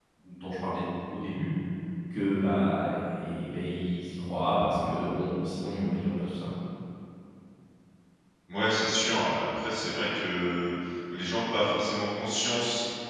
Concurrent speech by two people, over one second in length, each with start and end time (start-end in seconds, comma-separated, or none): none